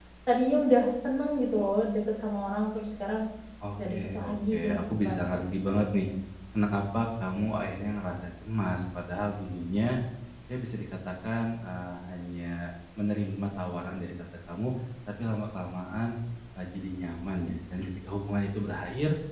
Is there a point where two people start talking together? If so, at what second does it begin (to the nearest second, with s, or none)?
4 s